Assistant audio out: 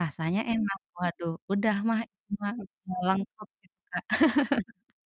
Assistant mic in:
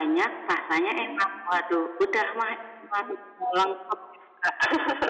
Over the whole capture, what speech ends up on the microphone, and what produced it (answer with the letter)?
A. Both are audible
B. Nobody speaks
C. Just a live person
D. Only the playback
D